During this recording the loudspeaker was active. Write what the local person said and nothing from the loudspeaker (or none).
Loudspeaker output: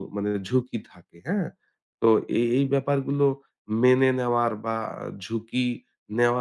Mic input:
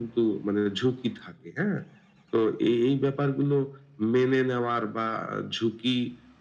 none